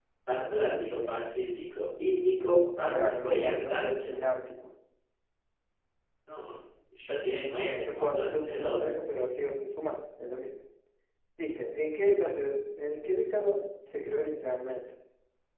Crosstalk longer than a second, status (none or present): present